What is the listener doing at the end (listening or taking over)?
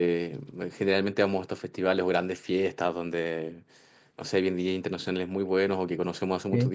listening